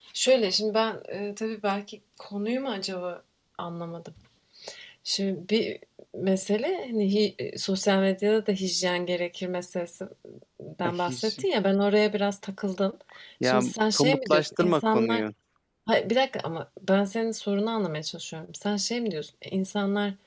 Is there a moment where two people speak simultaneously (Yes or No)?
Yes